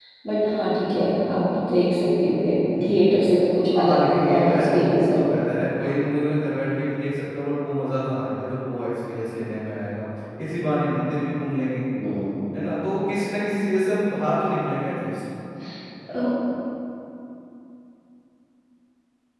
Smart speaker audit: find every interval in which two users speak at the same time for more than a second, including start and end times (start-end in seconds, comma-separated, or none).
3.8-5.2